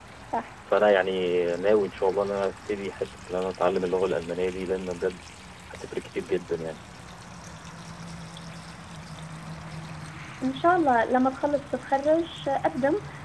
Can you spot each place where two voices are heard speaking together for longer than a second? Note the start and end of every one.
none

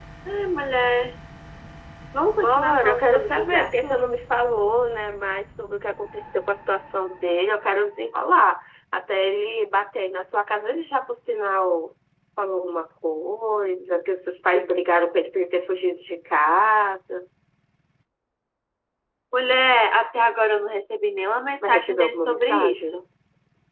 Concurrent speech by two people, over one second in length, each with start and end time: 2.4-4.0, 21.6-23.0

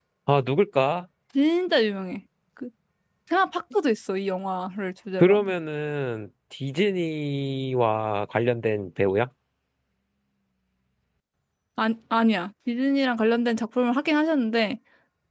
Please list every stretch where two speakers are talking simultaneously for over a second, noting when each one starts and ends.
none

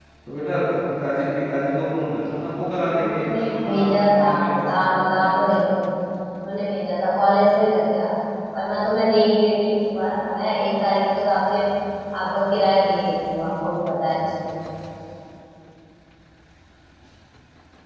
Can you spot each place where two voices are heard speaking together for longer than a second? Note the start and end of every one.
2.9-4.6

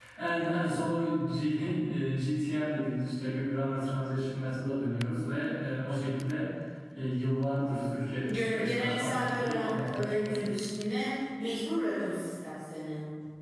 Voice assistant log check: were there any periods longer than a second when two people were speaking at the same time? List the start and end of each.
8.2-10.7

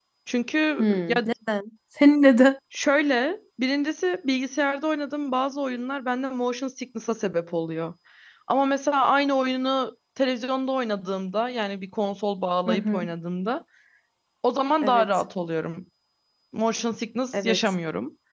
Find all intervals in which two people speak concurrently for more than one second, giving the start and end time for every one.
none

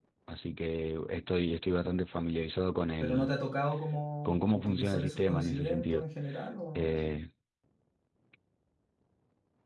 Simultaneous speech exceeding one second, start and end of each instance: 4.2-6.0

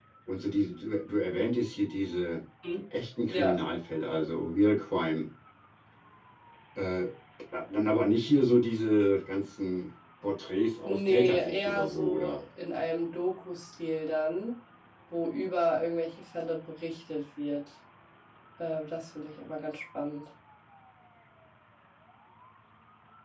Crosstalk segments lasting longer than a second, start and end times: 10.8-12.4

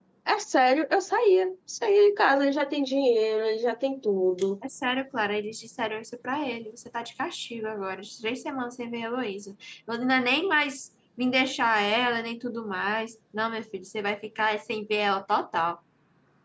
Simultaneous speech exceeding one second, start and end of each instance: none

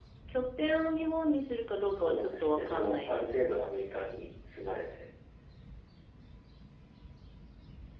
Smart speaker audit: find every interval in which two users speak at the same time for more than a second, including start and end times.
1.9-3.3

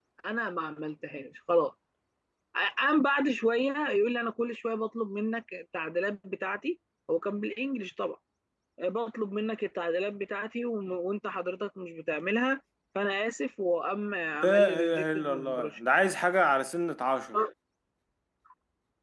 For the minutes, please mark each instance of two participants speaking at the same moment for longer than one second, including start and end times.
14.4-15.7

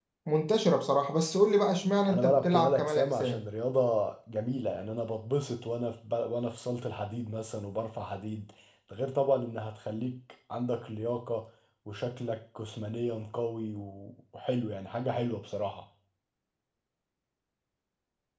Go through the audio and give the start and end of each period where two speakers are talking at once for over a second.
2.1-3.4

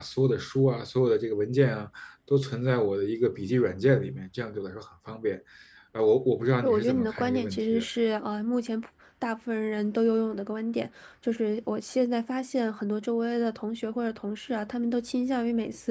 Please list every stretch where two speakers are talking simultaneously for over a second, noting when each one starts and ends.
6.6-7.8

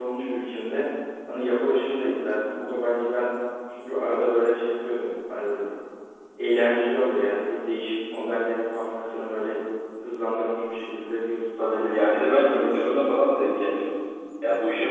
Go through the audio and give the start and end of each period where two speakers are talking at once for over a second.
11.6-12.9

